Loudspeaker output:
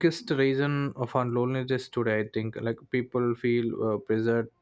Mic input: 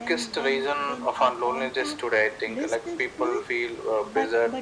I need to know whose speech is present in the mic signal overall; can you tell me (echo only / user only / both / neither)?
both